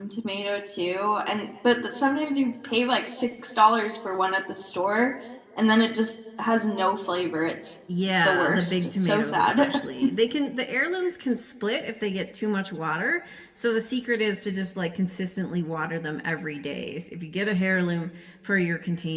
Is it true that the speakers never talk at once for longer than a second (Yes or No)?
No